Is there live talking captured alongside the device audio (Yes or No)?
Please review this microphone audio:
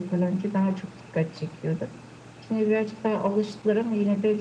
No